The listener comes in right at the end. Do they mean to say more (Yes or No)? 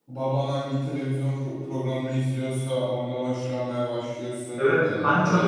Yes